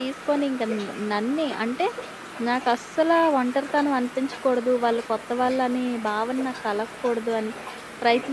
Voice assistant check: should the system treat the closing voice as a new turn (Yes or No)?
Yes